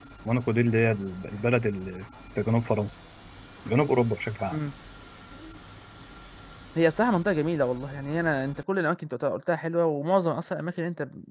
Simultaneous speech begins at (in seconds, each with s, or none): none